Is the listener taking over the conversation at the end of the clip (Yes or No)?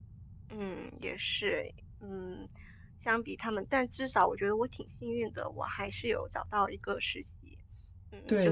Yes